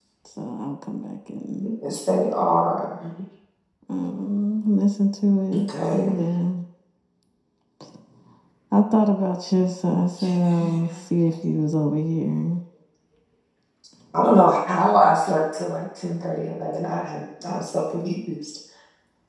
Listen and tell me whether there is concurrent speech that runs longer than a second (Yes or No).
No